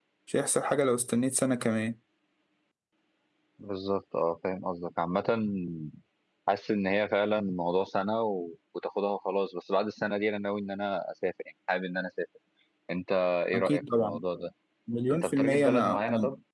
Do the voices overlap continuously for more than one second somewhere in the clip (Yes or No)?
Yes